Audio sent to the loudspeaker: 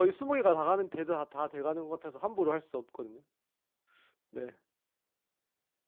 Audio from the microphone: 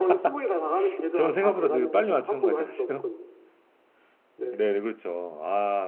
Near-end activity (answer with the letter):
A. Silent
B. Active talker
B